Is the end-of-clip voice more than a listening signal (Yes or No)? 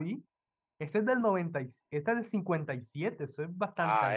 Yes